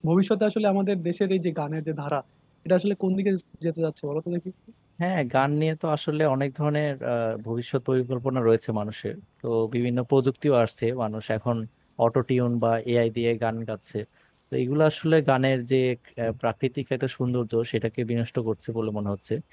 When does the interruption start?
none

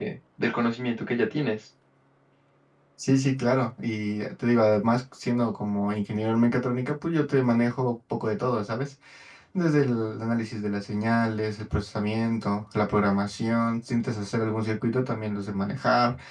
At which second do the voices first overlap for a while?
none

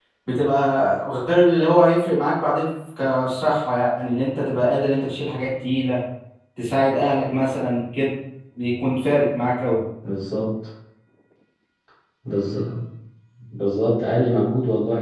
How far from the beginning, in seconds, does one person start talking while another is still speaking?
none

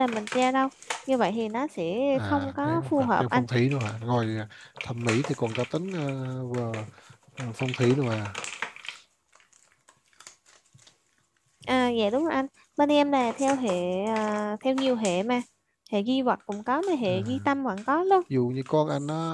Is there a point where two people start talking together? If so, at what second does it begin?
2.2 s

